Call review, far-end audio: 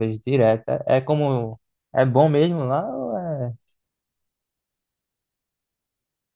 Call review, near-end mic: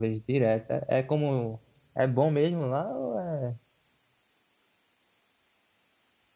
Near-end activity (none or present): none